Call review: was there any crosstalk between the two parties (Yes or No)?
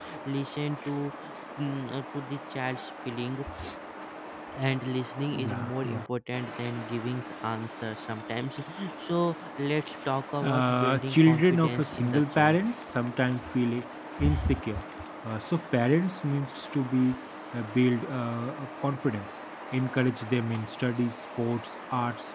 Yes